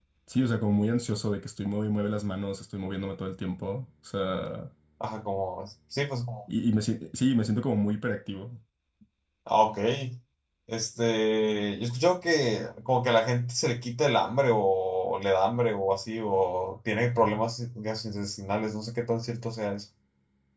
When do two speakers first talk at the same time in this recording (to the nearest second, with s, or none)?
none